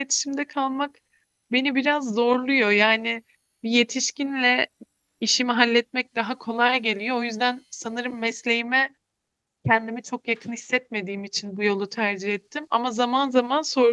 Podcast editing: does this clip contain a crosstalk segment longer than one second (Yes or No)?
No